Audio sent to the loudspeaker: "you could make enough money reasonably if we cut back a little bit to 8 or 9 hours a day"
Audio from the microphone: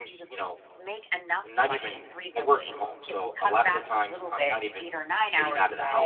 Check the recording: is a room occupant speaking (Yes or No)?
Yes